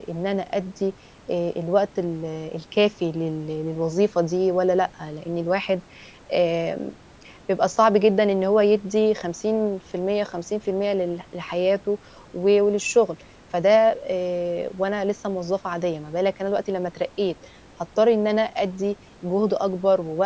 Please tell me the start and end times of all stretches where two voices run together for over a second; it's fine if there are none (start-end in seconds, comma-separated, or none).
none